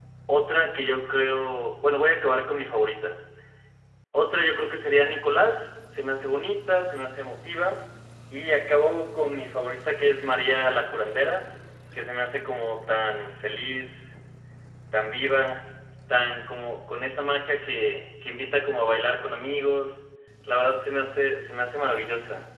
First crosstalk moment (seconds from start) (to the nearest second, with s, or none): none